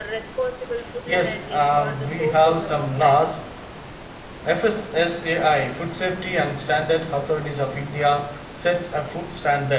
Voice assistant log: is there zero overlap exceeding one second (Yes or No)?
No